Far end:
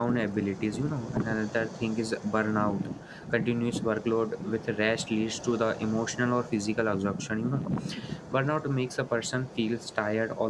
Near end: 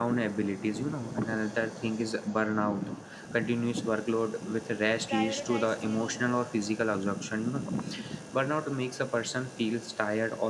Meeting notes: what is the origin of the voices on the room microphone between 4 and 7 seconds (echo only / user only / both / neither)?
both